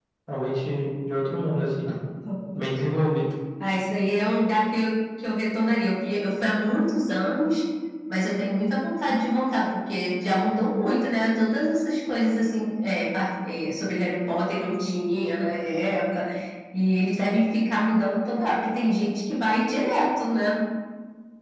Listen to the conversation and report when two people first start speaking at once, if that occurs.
none

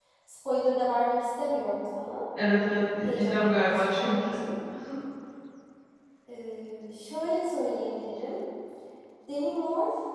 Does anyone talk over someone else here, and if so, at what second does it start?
2.4 s

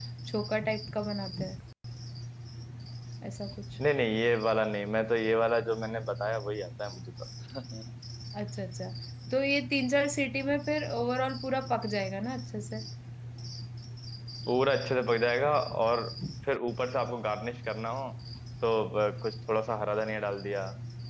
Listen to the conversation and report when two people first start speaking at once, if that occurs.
none

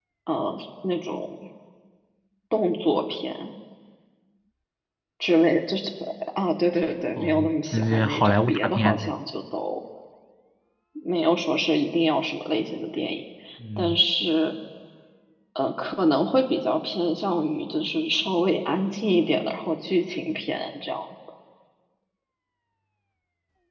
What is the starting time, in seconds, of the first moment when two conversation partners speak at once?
7.2 s

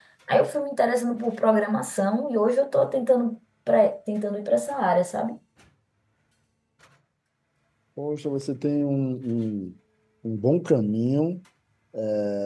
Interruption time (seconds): none

